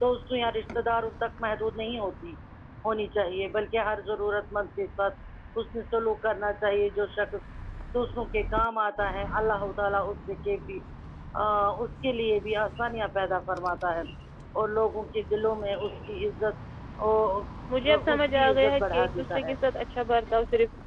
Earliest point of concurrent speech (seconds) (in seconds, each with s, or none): 17.9 s